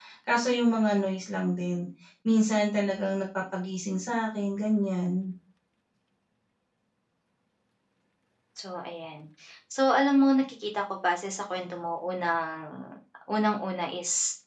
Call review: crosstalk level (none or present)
none